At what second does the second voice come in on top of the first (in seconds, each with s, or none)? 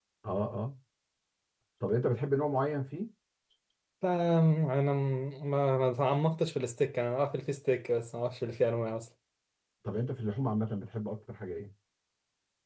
none